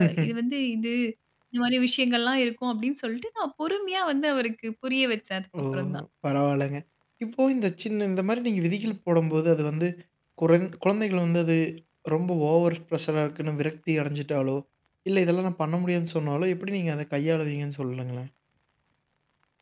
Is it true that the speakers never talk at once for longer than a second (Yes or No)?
Yes